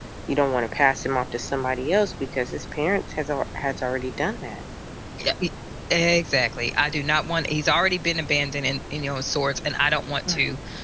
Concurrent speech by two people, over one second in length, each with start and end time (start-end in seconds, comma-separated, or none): none